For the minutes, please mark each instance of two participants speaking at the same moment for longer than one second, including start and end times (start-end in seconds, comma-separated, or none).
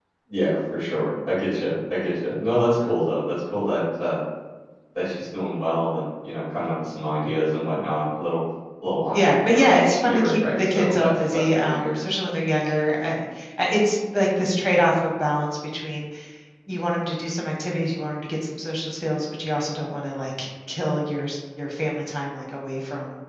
9.1-12.0